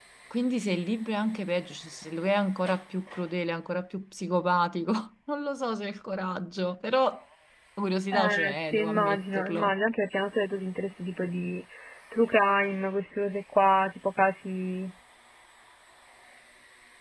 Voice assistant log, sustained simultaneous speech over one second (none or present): present